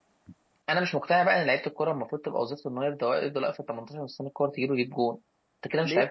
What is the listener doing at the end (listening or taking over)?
taking over